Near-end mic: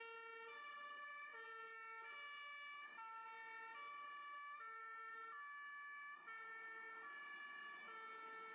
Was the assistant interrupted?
No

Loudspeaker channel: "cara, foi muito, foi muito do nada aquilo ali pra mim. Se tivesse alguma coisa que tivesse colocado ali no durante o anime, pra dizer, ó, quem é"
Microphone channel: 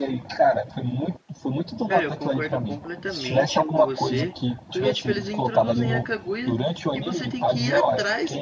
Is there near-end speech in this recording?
Yes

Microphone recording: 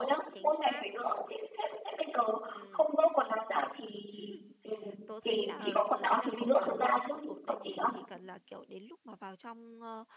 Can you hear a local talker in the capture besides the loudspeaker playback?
Yes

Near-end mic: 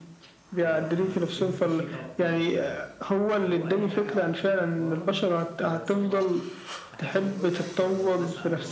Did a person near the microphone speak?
Yes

